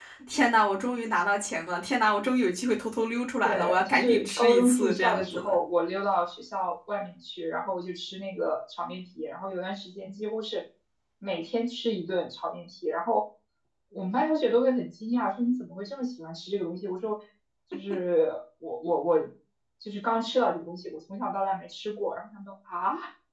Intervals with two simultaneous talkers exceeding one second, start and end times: 3.4-5.6

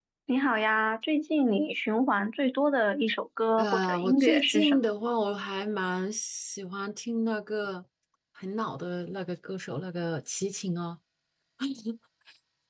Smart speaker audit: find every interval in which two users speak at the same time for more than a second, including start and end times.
3.6-4.9

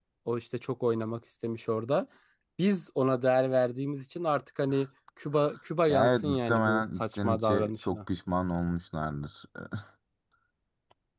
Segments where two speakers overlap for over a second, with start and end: 5.9-8.0

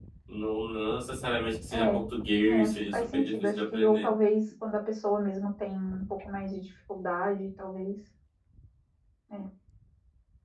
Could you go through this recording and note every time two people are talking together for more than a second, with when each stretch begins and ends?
2.5-4.1

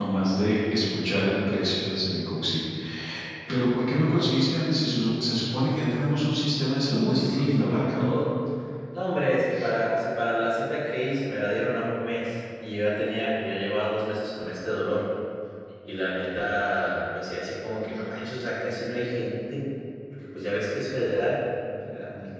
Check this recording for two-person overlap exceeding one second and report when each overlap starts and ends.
6.8-8.1

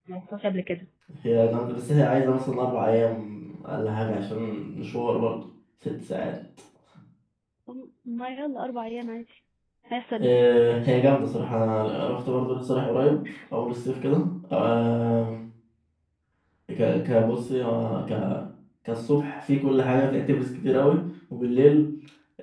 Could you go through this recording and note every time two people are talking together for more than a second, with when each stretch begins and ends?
none

